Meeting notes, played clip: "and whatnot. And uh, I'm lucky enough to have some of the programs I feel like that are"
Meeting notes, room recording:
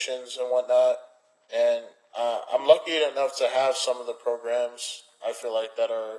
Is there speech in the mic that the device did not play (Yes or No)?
No